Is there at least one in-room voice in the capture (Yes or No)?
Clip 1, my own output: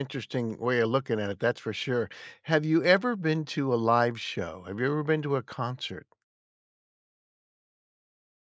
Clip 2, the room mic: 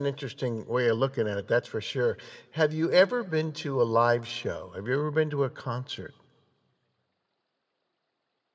No